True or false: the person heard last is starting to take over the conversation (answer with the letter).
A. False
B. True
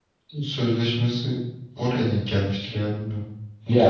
B